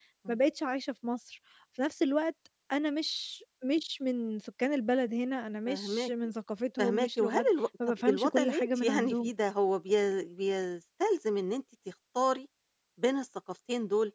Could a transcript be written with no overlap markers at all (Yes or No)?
No